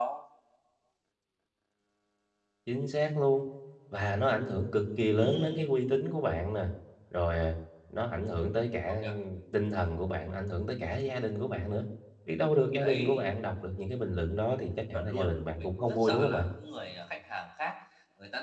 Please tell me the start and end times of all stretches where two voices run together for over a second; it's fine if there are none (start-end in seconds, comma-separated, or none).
14.9-16.5